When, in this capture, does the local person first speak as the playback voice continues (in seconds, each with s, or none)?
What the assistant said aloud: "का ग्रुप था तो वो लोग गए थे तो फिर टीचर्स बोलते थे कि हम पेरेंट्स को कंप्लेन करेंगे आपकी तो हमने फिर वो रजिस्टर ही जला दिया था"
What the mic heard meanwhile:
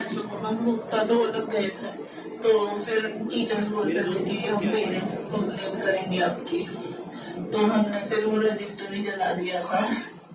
3.8 s